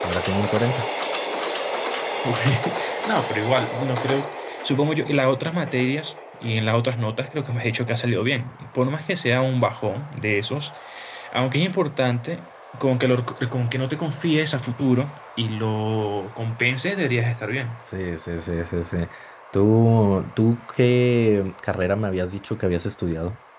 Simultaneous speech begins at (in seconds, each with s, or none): none